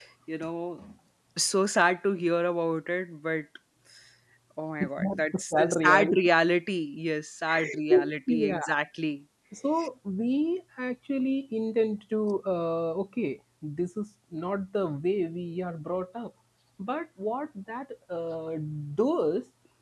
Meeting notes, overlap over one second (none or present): present